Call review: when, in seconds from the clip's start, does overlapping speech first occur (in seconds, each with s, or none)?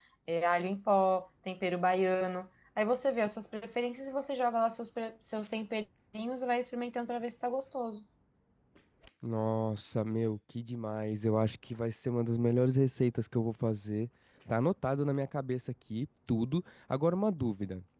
none